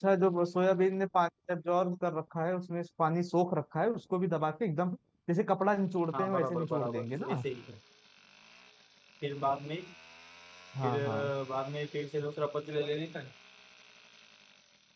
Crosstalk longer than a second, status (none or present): present